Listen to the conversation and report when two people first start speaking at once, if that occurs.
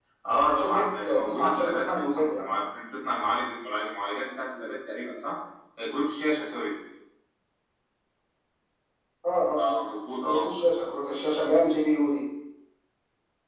1 s

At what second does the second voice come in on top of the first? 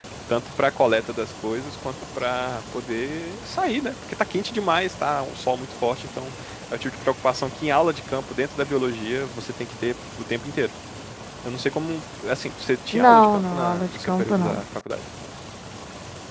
13 s

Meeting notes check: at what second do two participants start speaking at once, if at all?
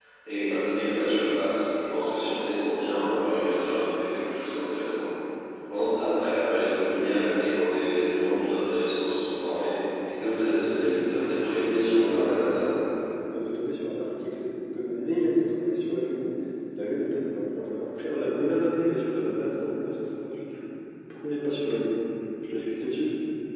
10 s

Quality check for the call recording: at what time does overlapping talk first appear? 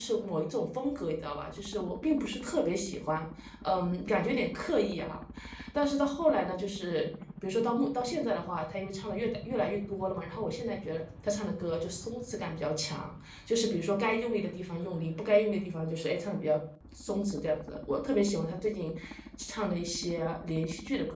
none

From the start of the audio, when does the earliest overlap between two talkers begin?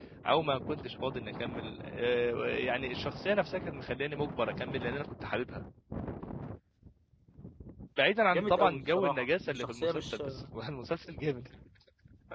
8 s

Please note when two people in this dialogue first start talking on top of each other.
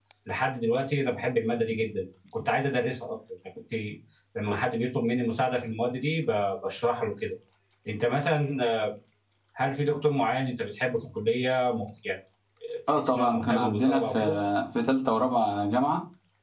13 s

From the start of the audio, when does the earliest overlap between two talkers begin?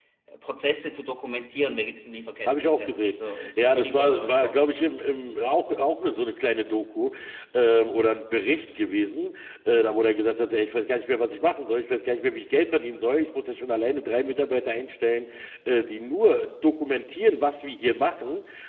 2 s

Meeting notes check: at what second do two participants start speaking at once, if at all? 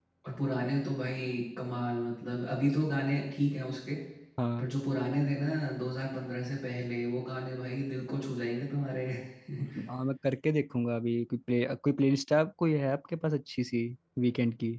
none

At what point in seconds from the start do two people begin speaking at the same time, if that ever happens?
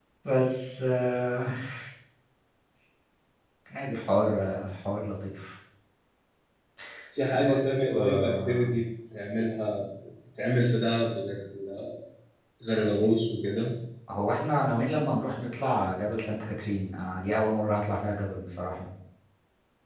7 s

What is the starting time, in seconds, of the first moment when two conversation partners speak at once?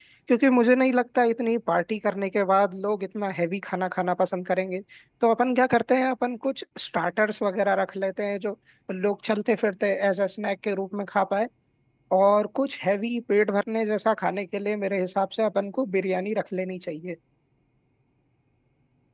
none

